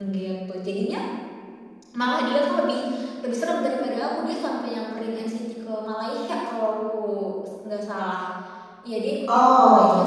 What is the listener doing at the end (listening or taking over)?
listening